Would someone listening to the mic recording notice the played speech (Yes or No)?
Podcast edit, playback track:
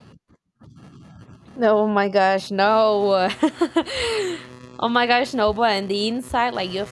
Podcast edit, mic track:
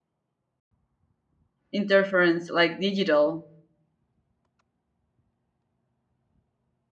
No